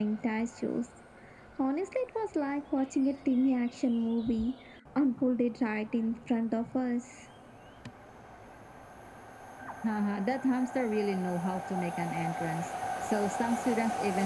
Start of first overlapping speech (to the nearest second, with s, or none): none